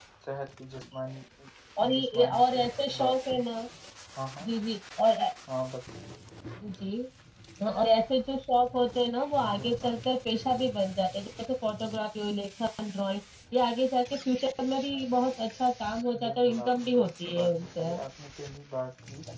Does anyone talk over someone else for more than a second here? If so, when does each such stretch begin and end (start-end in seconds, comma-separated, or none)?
1.9-3.4, 16.2-17.9